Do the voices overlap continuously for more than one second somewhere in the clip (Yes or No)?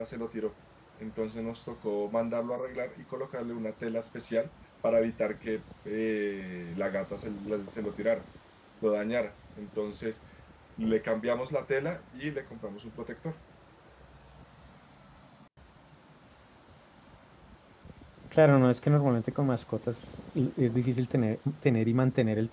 No